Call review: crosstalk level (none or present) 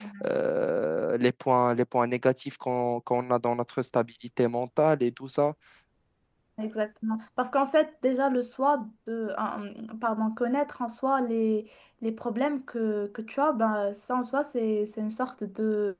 none